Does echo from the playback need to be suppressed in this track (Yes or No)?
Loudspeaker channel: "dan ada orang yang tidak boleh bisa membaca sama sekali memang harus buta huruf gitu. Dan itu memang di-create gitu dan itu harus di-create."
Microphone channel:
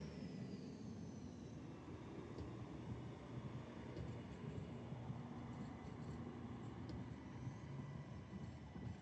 No